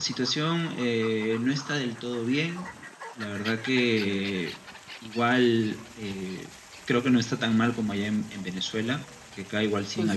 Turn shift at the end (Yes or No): No